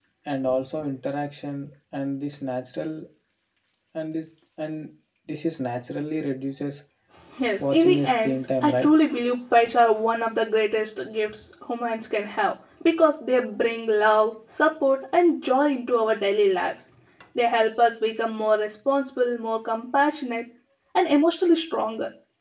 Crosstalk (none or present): present